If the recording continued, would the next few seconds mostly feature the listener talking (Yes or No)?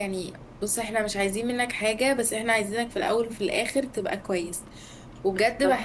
No